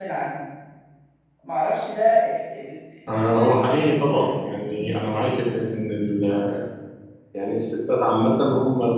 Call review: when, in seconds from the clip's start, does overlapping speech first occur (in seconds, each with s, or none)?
3.2 s